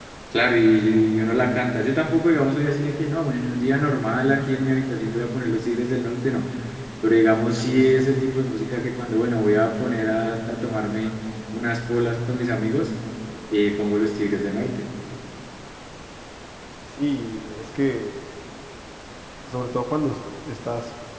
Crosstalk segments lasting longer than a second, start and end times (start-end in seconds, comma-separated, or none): none